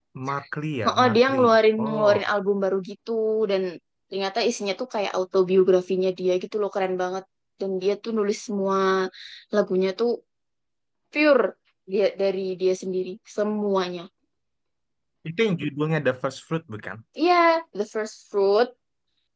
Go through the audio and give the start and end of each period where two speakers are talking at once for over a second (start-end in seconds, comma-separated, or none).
0.9-2.2